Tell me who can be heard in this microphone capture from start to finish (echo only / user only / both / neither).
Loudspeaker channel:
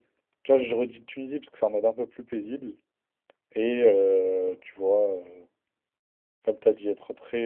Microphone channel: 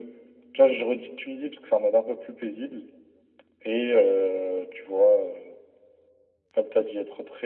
echo only